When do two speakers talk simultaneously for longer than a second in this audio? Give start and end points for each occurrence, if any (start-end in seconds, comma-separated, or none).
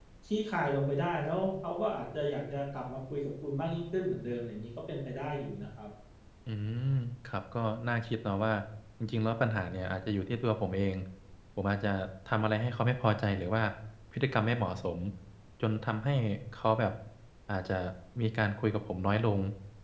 none